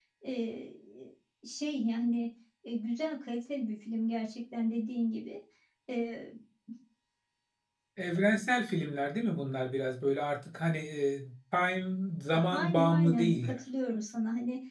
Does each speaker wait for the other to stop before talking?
No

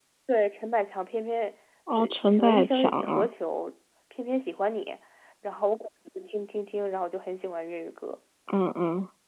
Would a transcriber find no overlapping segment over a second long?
No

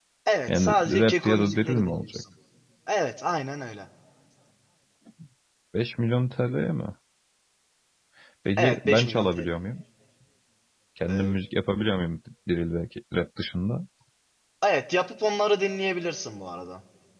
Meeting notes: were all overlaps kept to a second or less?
No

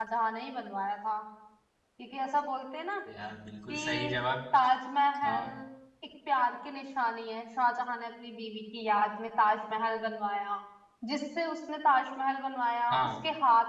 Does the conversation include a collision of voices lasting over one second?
No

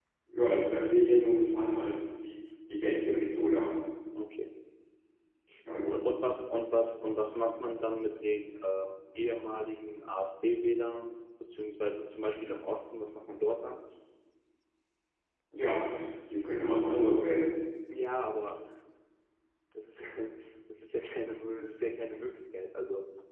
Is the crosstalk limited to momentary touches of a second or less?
Yes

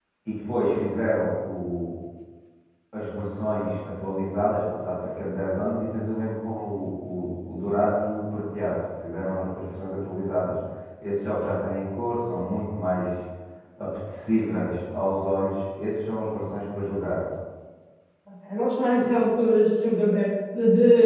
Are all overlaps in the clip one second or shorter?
Yes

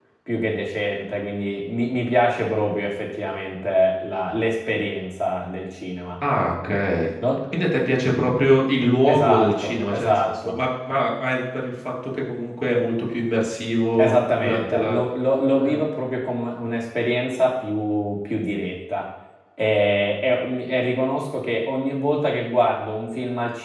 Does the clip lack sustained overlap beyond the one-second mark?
No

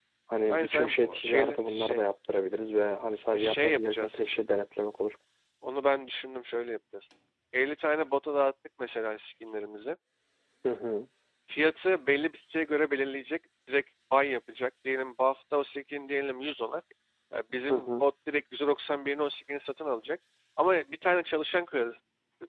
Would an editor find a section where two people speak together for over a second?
Yes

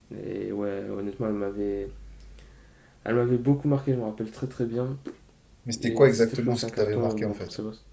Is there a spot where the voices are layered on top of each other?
Yes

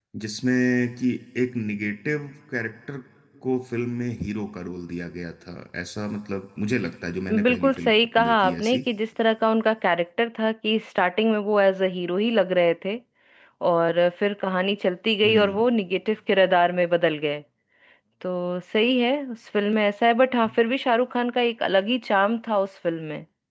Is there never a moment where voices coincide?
No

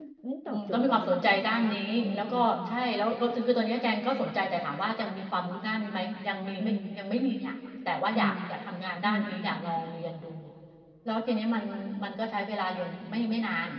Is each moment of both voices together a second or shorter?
No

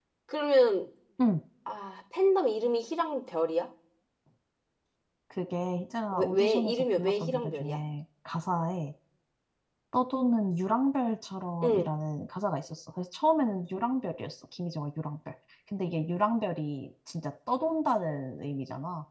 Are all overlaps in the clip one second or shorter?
No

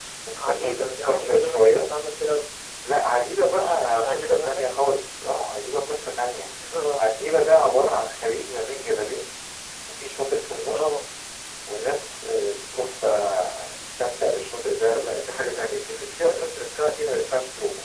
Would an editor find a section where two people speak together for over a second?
Yes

